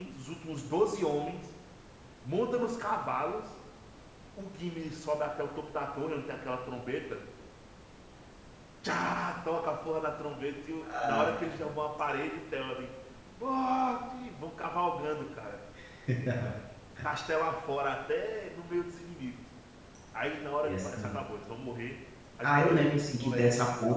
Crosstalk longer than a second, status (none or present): present